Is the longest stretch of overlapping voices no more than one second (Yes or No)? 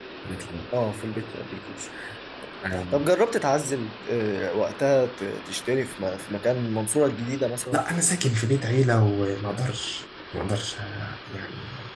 Yes